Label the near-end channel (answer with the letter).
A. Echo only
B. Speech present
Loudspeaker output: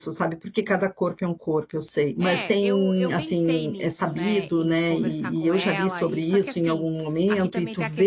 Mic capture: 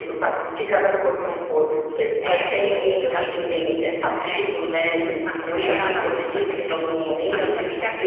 A